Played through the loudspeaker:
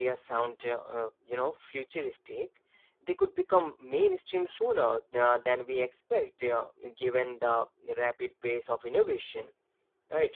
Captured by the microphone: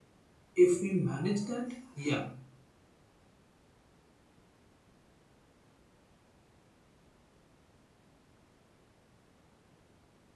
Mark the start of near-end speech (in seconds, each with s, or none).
0.6 s